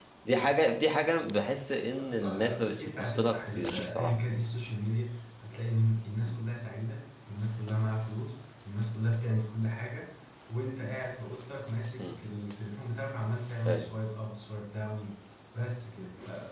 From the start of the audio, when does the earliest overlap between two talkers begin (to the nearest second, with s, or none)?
2 s